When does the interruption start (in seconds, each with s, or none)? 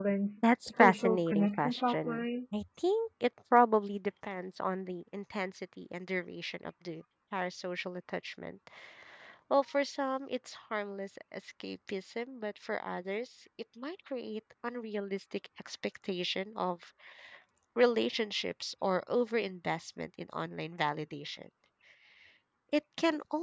0.7 s